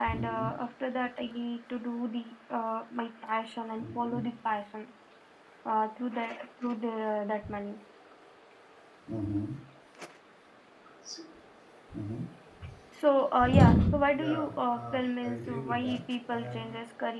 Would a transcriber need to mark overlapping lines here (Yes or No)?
Yes